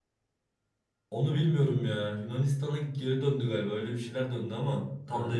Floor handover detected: Yes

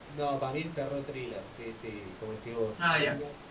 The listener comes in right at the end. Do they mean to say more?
No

